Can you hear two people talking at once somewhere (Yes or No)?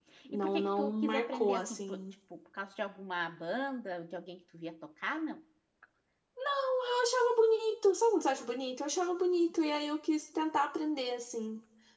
Yes